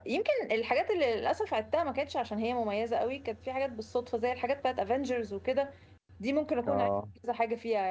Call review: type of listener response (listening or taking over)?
listening